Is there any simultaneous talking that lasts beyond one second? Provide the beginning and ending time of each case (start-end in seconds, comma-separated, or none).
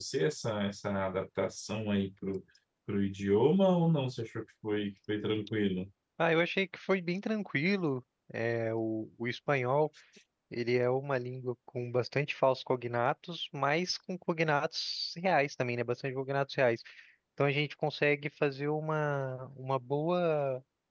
none